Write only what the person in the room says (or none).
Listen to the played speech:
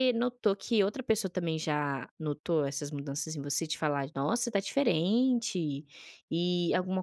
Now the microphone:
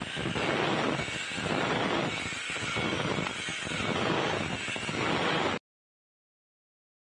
none